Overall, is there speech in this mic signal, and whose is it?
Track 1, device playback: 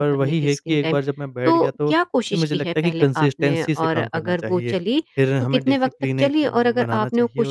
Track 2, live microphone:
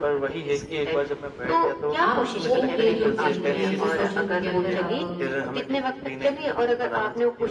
both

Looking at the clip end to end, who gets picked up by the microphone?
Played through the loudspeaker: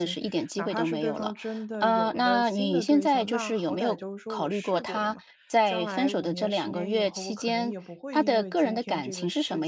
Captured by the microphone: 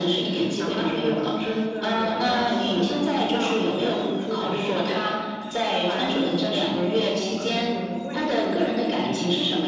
echo only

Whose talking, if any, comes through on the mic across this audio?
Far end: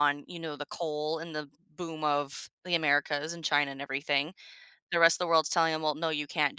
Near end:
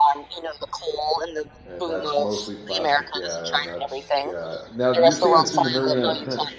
both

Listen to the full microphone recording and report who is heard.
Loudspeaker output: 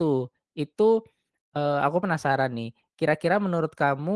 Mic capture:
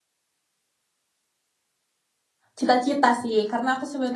user only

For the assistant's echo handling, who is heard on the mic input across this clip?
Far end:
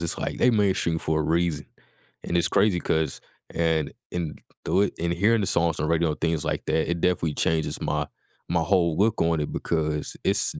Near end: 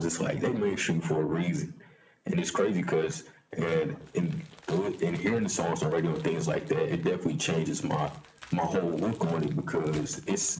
echo only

